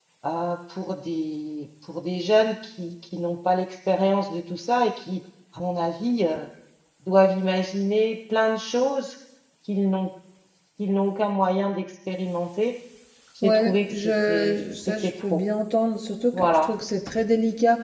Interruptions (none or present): present